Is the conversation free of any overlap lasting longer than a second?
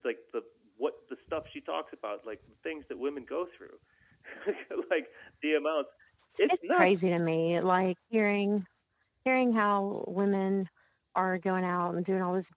Yes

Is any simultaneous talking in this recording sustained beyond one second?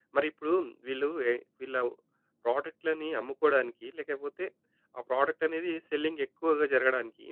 No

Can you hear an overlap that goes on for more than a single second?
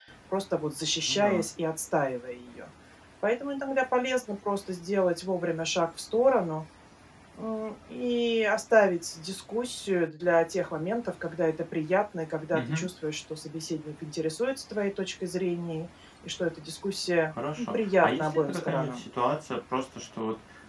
Yes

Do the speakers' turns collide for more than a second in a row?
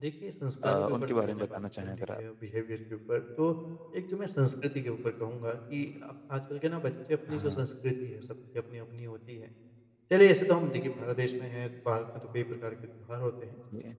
Yes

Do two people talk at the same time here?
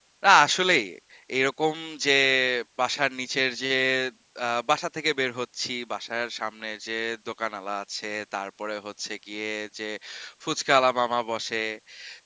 No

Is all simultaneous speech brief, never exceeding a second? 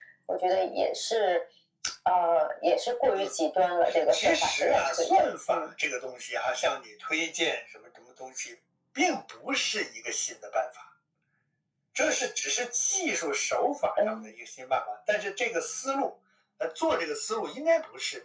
No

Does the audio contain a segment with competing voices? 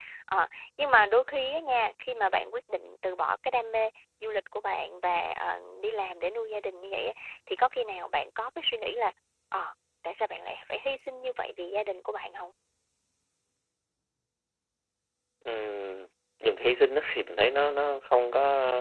No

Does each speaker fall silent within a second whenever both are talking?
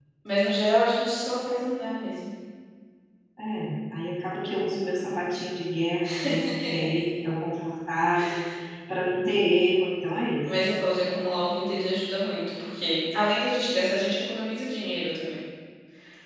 Yes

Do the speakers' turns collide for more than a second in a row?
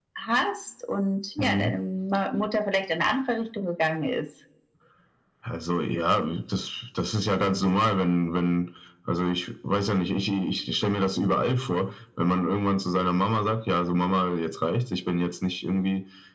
No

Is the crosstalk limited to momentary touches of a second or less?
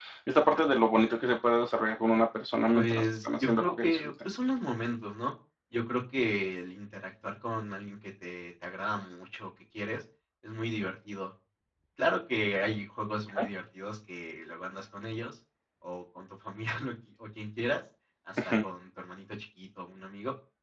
No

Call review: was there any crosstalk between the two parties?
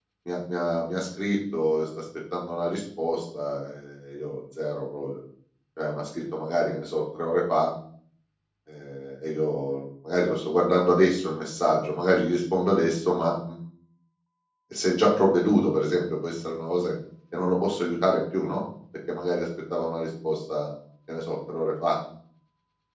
No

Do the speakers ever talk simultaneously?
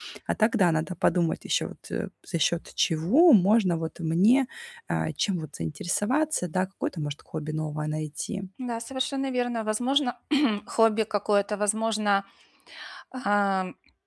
No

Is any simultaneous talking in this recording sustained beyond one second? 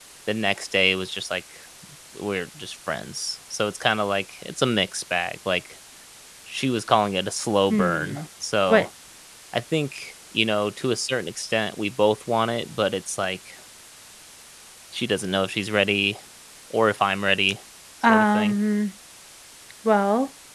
No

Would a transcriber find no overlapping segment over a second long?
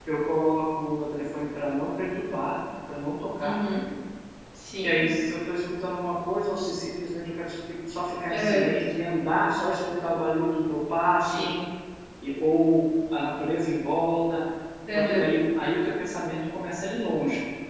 Yes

